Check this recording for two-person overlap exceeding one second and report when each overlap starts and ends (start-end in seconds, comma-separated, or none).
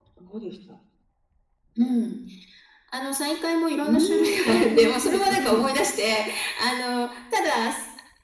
3.8-5.7